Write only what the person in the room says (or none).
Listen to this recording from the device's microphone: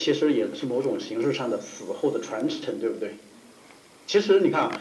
none